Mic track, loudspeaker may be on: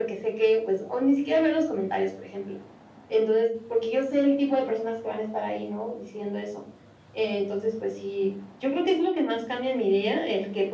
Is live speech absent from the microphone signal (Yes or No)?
Yes